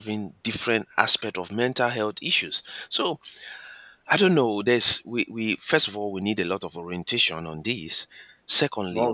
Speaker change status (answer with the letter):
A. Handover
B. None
B